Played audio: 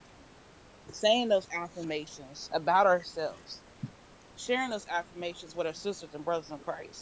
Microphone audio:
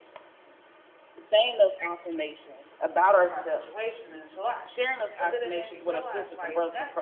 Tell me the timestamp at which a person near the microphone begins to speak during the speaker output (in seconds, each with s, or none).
2.9 s